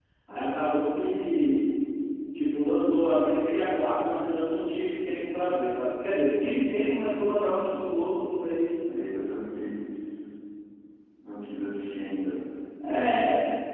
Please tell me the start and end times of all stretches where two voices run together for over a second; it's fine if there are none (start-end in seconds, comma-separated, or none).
none